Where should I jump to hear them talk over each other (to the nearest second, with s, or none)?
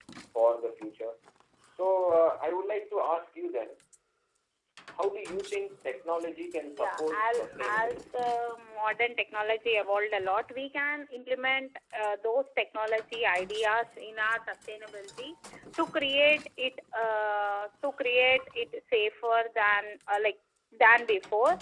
7 s